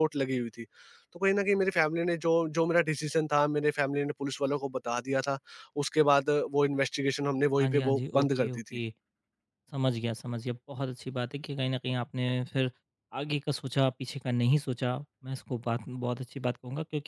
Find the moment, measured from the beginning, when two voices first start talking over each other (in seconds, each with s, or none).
7.6 s